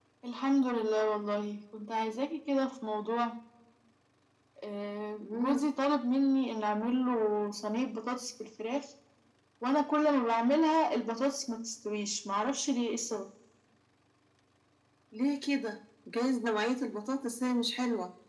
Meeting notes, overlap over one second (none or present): none